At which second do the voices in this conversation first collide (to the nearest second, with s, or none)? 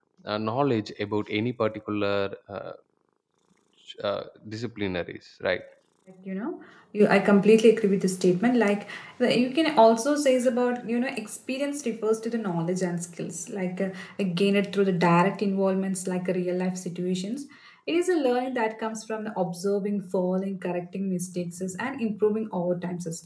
none